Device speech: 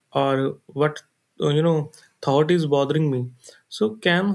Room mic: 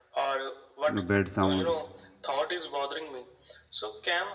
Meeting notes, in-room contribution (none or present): present